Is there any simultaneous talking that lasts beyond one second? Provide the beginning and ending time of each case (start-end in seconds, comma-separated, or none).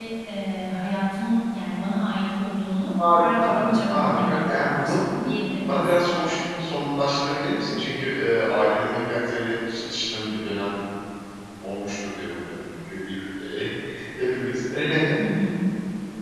3.2-5.0